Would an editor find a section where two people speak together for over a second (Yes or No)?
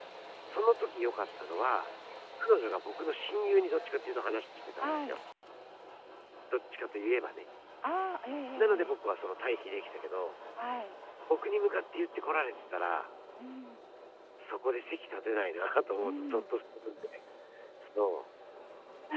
No